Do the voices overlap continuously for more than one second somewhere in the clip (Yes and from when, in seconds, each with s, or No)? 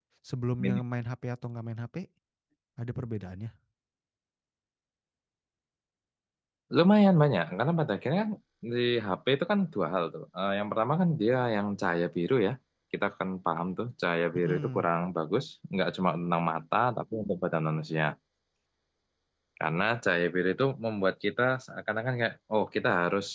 No